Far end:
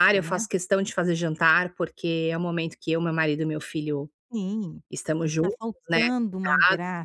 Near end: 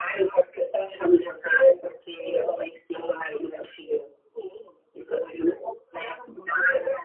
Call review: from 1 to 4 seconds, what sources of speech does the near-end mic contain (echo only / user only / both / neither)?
echo only